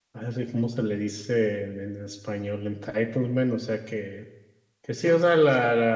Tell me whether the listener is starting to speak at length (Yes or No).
No